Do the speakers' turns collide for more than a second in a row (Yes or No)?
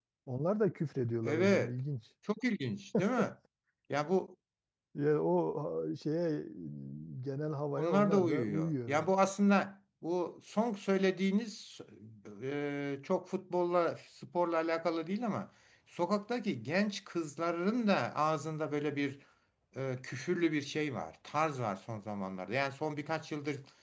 Yes